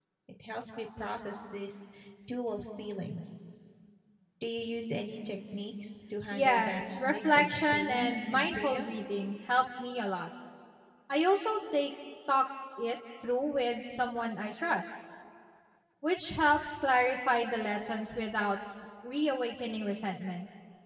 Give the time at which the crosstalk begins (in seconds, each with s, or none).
6.3 s